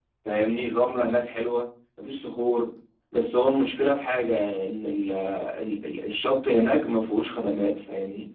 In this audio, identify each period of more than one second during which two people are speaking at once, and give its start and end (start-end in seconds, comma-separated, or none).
none